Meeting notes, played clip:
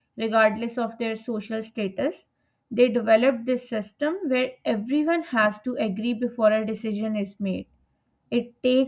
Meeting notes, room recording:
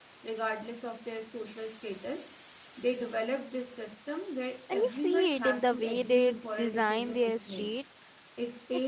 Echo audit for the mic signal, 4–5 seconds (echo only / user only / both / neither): both